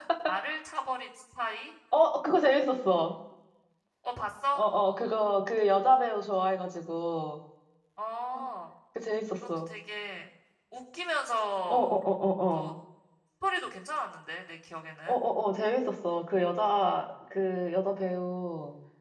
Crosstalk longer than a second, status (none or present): none